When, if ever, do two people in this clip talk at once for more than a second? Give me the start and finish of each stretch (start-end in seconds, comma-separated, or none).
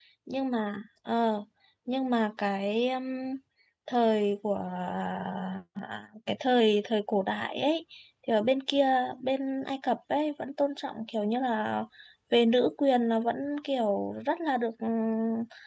none